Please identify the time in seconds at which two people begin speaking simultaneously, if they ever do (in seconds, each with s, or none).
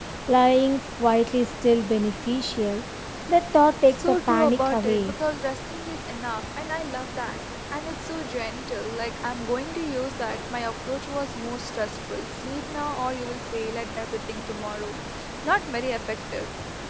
3.9 s